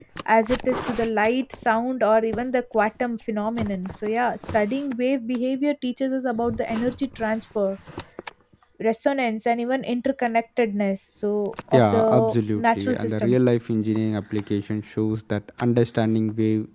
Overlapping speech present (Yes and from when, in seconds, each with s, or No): Yes, from 11.7 s